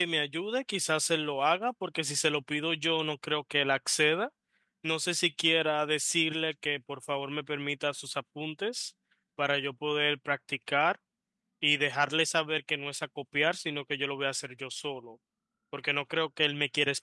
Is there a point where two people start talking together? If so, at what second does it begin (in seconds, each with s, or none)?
none